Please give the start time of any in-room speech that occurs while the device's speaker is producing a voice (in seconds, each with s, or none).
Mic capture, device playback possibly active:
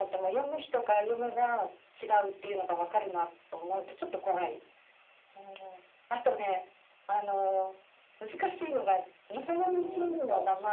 9.7 s